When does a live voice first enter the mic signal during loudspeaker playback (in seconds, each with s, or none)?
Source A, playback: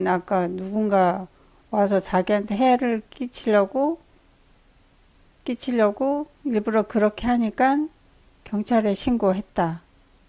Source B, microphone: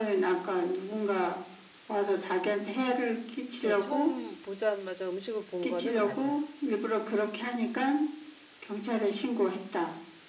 3.6 s